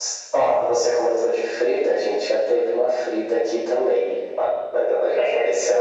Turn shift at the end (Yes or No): No